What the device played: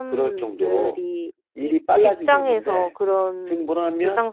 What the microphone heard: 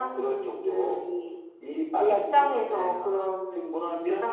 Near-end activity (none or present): present